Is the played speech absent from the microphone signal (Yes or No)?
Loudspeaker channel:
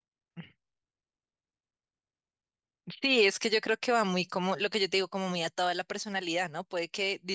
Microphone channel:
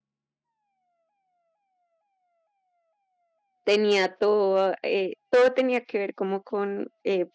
Yes